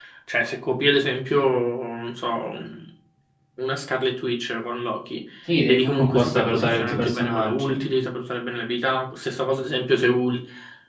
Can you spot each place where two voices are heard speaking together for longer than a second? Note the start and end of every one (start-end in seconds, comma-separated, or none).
5.7-7.8